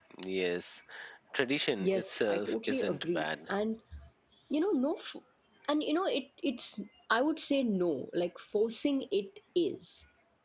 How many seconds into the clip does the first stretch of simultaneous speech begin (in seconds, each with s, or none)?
1.8 s